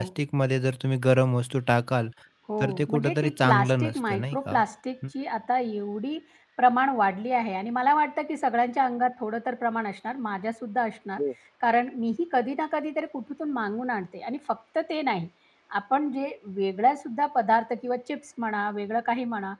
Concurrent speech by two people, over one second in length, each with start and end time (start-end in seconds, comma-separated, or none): 2.6-4.5